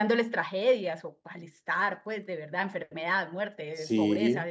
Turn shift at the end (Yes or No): No